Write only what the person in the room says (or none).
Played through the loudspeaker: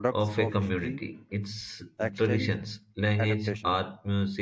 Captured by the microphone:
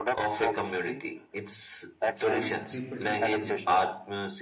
and spiritual traditions